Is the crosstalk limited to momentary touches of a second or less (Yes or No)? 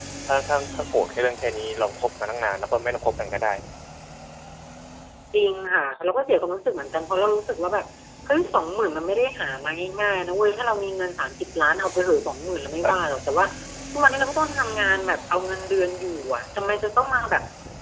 Yes